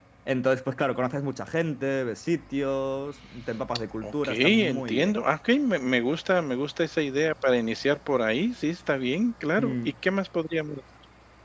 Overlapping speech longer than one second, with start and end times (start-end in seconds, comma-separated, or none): 4.0-5.2